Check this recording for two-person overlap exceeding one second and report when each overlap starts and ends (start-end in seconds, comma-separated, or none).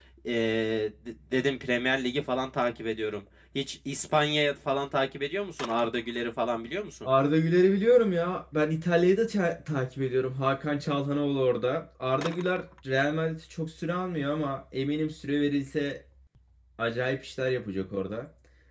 none